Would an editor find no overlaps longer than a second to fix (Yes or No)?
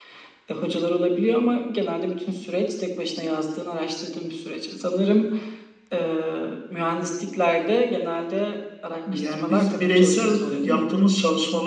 No